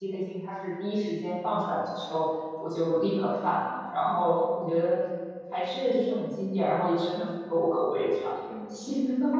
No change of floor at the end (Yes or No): No